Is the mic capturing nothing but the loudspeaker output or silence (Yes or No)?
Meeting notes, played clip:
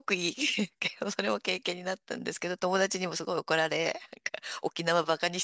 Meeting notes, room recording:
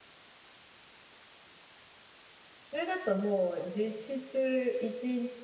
No